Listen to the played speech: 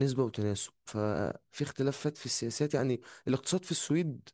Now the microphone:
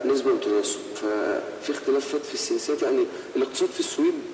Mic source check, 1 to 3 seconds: echo only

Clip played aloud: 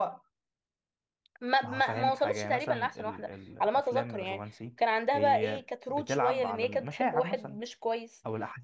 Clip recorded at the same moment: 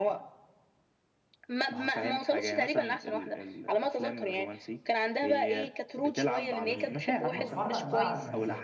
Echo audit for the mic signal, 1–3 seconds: echo only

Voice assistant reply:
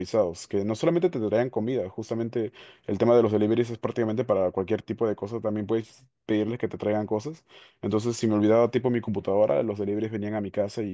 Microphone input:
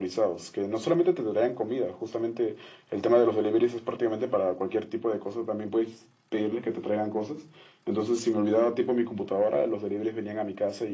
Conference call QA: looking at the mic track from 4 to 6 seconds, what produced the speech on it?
echo only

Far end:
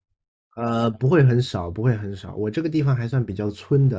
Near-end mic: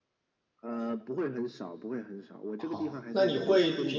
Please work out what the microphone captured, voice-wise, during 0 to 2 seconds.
echo only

